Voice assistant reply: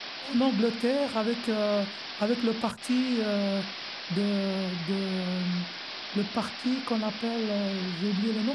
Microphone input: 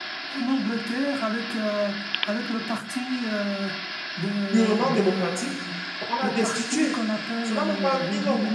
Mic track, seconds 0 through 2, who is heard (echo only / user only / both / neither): echo only